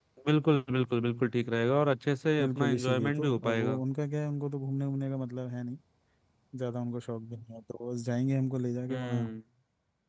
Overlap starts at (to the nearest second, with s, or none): 2 s